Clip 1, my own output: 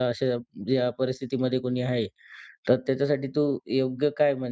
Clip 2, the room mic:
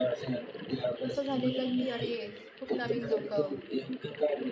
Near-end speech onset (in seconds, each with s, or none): 1.0 s